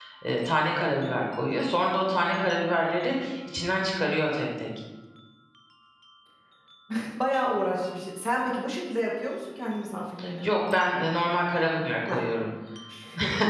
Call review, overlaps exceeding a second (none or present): none